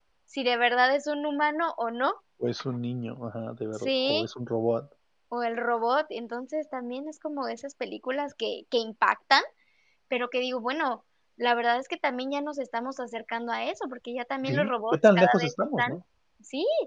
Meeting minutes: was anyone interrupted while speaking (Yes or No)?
Yes